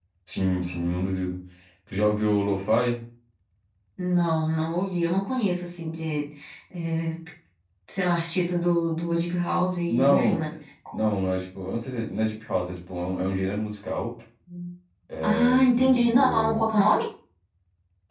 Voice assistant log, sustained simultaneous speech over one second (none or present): present